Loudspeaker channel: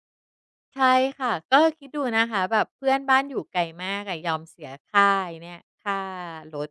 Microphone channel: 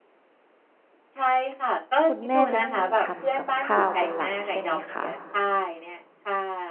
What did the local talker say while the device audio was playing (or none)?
คุณแม่เป็นคนทำกับข้าวเป็นหลักใช่ไหมคะ